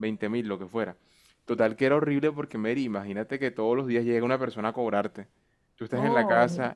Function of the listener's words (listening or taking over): listening